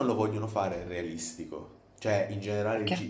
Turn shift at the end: No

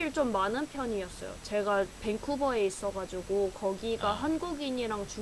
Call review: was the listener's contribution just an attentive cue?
Yes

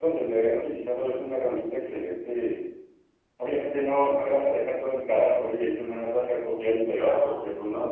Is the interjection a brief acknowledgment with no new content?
Yes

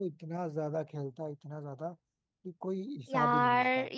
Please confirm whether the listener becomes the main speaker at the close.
Yes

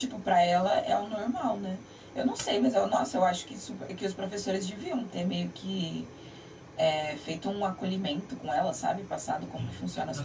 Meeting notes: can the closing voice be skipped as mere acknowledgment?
No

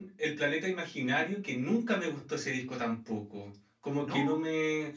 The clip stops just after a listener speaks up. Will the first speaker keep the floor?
Yes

